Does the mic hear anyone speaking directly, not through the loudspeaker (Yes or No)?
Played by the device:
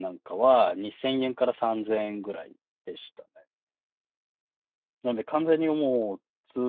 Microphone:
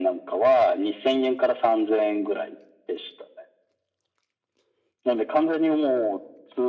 No